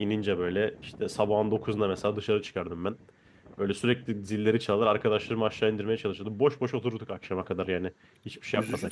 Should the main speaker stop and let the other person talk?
Yes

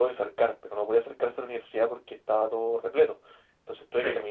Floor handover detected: No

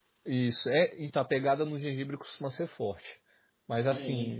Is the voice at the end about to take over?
No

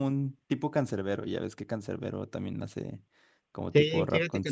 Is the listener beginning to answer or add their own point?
Yes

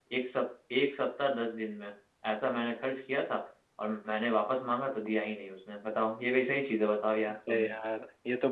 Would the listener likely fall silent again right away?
No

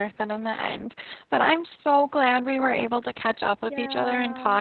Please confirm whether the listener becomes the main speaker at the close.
No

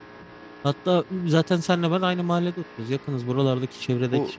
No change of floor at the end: No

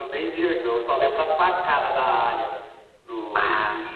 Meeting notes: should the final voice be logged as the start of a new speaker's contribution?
No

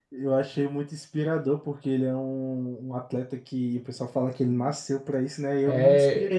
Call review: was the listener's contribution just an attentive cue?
Yes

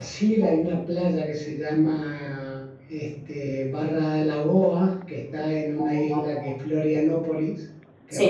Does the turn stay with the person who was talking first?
Yes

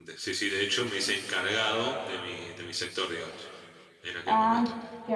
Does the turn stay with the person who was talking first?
No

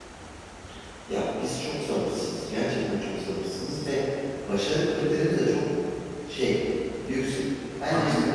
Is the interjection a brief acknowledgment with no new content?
Yes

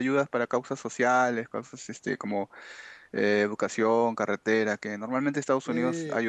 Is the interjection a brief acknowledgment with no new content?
No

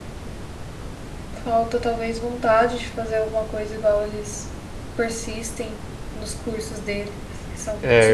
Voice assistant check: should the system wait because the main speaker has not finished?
No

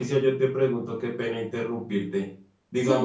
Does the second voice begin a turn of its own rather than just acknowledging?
No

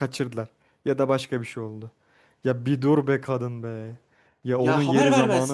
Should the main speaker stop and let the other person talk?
Yes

